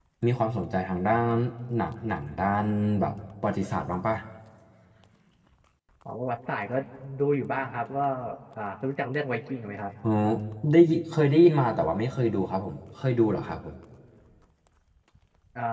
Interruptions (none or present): none